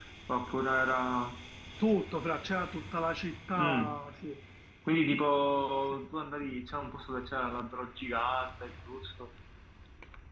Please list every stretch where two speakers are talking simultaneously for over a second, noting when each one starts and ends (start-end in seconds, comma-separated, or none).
none